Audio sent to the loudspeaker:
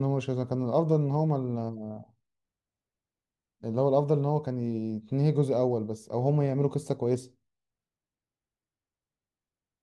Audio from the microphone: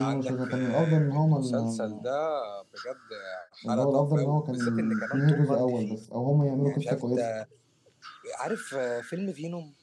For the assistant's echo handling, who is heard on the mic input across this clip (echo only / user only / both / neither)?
both